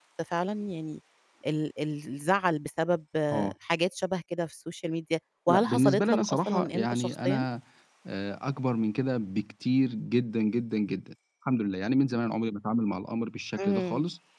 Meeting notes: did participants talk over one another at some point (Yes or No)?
Yes